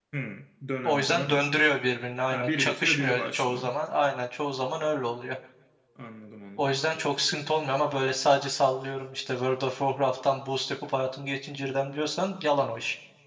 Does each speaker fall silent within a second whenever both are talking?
No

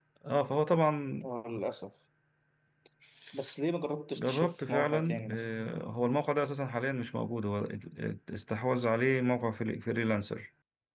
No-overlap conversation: No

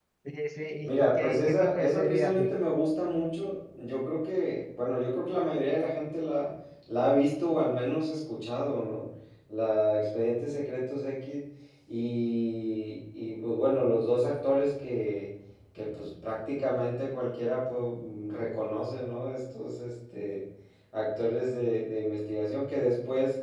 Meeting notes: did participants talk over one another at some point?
Yes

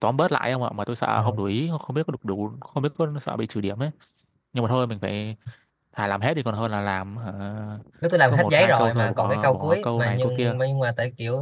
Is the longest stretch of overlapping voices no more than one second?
No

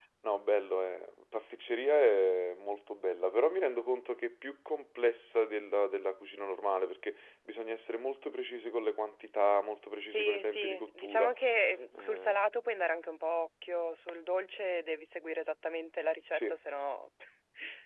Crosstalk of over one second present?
Yes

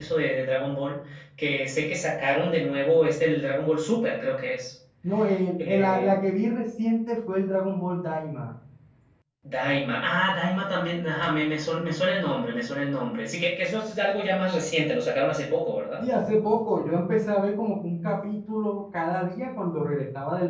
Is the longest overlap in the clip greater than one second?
No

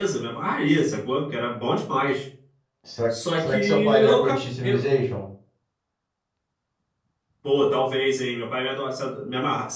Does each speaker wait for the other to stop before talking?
No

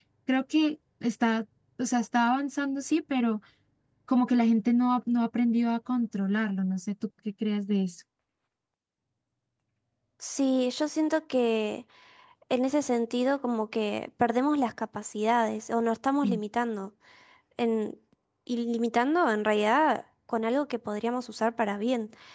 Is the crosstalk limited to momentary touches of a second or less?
Yes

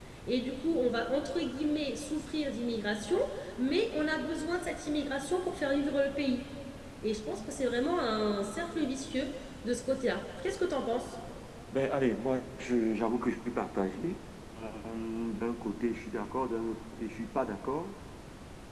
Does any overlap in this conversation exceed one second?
No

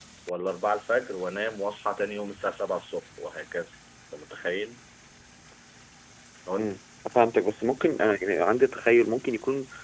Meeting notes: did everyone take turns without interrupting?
Yes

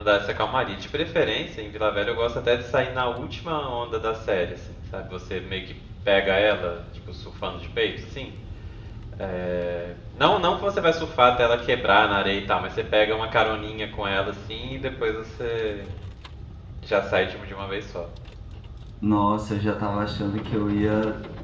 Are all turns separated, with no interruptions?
Yes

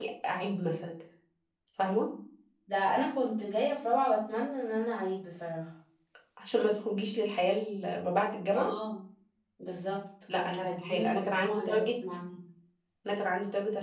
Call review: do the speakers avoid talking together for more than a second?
No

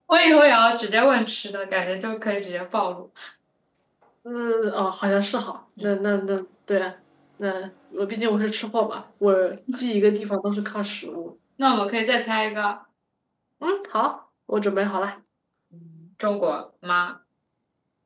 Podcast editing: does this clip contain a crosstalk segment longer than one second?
No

